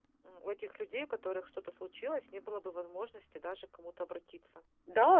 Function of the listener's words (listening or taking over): taking over